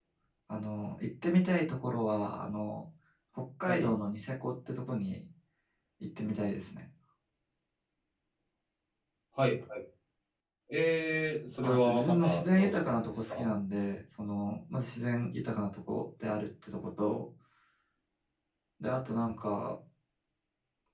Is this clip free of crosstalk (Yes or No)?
No